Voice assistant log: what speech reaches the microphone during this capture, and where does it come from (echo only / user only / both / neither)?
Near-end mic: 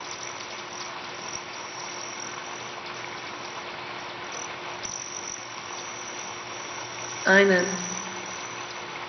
user only